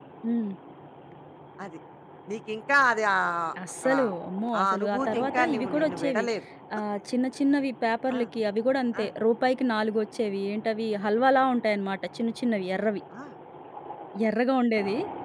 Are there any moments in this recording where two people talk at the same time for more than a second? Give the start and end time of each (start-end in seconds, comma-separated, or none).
4.6-6.2